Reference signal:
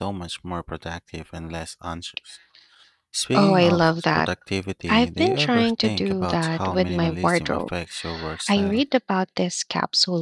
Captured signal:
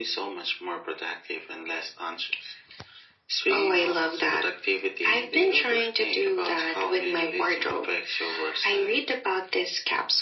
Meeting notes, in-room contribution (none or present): none